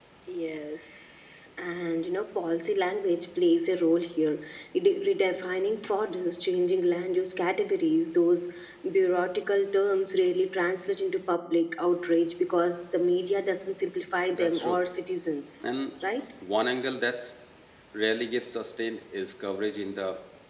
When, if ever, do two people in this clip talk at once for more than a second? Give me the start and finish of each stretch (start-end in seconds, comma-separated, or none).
none